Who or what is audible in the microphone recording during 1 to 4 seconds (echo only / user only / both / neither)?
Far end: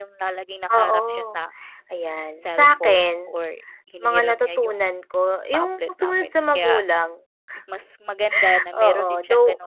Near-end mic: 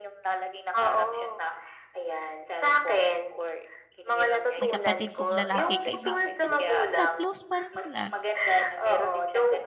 echo only